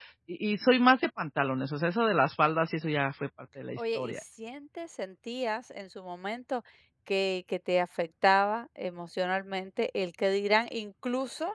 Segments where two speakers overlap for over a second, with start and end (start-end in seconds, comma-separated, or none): none